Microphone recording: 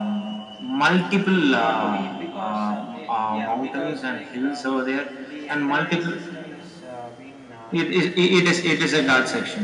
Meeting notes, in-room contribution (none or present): present